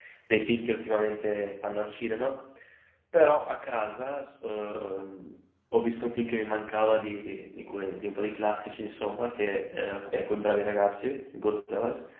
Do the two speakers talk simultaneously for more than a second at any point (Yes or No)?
No